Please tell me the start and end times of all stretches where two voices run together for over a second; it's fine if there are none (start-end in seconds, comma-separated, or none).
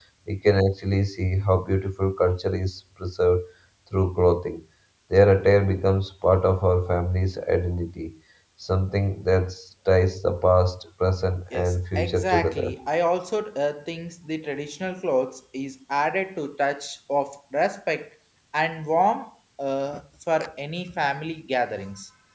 11.5-12.8